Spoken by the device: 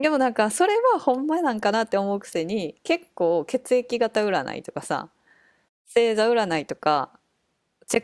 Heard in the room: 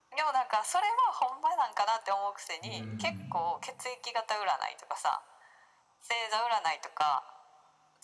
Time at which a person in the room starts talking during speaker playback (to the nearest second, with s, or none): 3 s